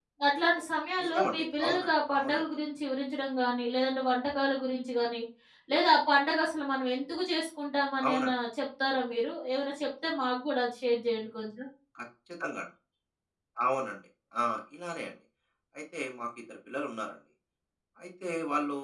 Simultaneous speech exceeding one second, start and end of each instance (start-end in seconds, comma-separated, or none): 1.0-2.4